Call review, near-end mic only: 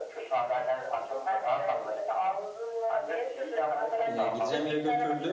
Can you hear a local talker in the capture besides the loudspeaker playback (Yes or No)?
Yes